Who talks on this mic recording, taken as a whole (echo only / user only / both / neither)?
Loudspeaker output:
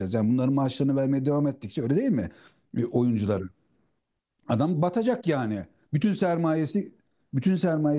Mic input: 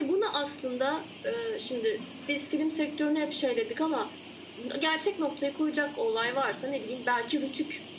user only